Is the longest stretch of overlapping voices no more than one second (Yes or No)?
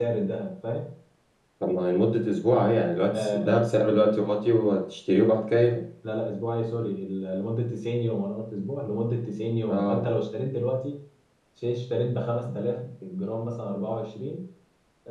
Yes